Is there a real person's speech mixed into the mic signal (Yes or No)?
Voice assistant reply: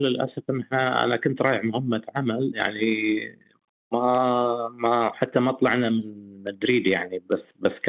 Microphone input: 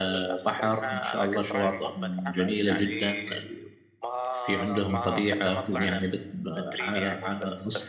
Yes